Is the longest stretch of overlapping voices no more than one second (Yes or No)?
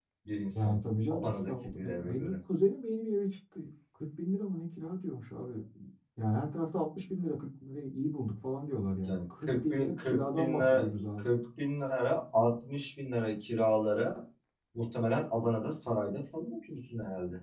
No